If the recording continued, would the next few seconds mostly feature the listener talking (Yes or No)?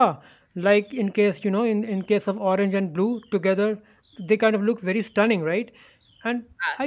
No